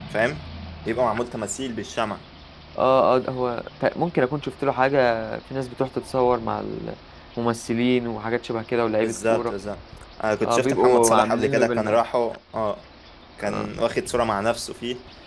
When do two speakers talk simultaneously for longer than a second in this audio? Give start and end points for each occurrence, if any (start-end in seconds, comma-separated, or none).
10.4-12.0